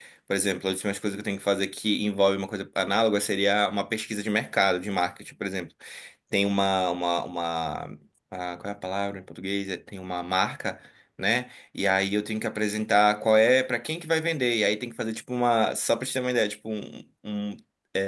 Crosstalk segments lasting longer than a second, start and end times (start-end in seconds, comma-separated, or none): none